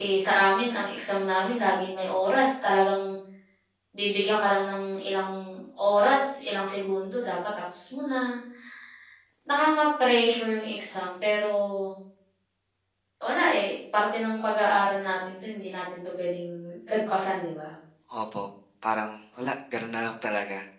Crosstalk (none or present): none